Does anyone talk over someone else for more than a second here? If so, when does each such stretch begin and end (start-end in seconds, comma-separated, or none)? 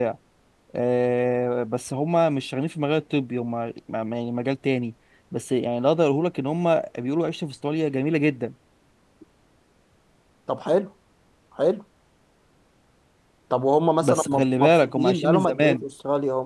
14.0-15.8